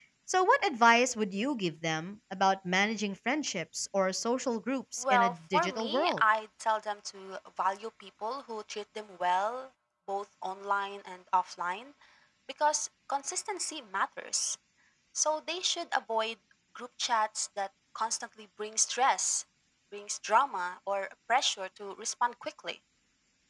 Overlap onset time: 5.0 s

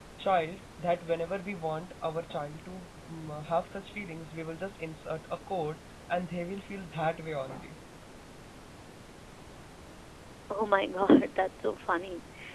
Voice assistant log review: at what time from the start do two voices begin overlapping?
none

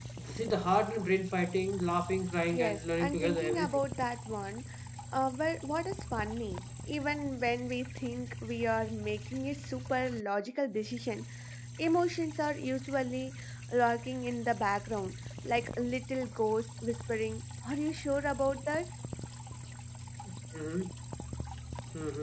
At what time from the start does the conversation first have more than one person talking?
2.5 s

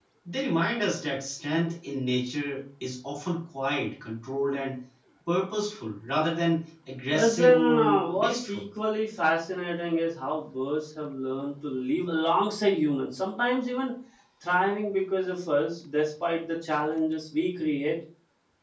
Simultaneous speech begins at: 7.1 s

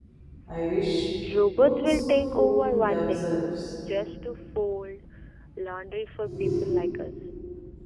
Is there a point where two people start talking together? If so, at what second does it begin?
1.6 s

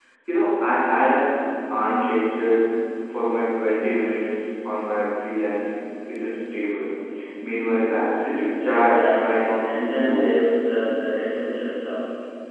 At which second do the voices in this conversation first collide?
8.7 s

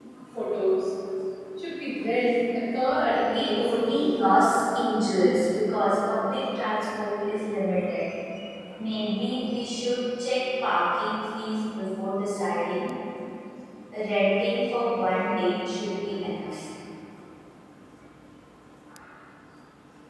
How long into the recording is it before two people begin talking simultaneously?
2.9 s

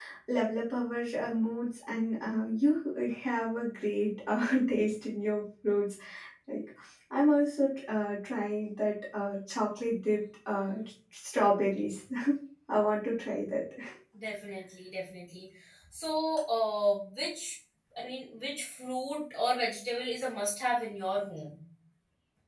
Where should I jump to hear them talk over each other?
none

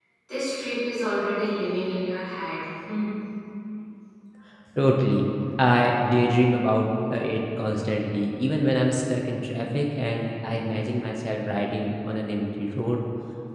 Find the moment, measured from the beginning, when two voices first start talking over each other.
none

